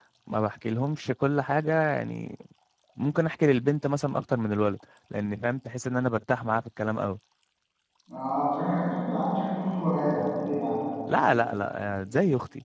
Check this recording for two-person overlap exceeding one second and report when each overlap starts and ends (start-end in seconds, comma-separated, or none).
none